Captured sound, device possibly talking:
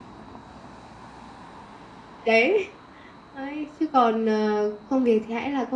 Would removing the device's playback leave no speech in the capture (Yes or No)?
No